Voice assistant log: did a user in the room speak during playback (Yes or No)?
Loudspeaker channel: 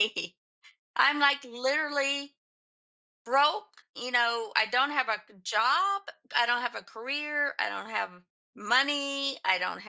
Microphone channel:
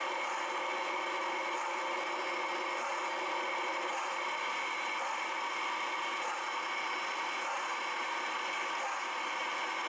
No